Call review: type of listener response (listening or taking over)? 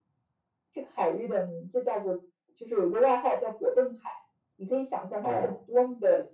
listening